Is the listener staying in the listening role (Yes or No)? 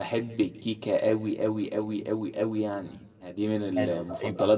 No